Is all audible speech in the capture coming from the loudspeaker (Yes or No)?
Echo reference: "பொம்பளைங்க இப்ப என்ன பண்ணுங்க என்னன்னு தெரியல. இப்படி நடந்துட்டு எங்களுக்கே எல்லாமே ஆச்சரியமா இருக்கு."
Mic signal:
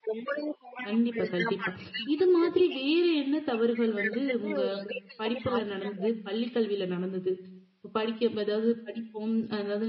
No